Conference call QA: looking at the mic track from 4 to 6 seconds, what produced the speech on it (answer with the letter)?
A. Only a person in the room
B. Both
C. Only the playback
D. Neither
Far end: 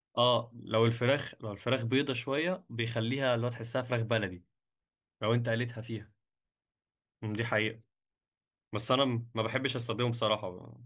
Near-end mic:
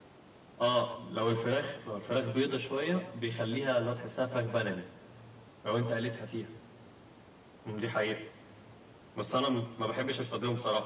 C